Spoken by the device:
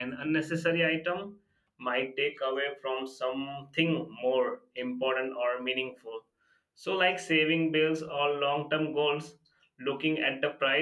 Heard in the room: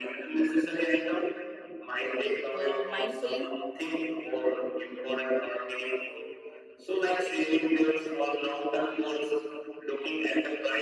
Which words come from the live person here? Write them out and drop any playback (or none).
uh, mindfully